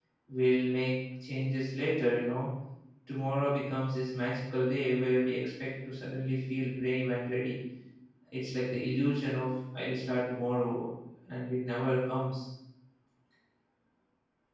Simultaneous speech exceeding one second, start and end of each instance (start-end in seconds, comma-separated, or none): none